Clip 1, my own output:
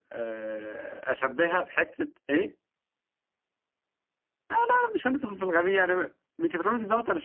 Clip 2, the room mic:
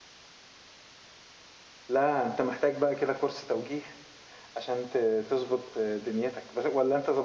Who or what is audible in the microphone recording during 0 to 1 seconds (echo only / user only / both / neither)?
neither